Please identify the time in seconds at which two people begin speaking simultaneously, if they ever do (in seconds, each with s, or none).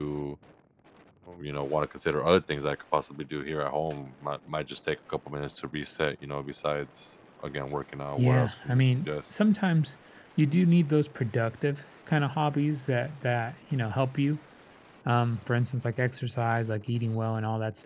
8.2 s